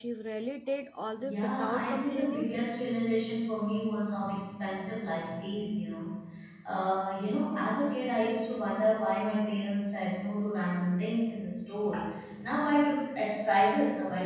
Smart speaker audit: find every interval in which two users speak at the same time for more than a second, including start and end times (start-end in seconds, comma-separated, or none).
1.2-2.5